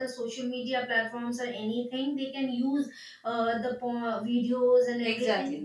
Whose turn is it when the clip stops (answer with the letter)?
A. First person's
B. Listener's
A